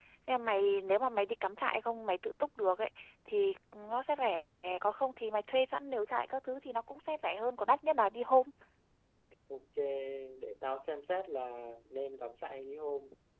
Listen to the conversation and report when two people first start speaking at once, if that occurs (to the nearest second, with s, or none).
none